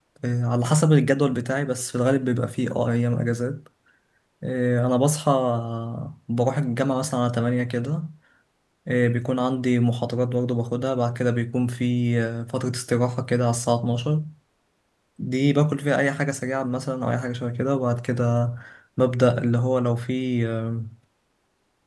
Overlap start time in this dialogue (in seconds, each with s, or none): none